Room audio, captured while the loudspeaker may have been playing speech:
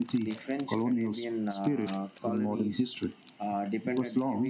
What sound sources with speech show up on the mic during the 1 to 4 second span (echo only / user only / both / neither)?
echo only